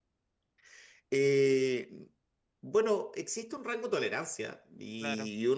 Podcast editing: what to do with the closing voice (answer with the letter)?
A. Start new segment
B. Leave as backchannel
B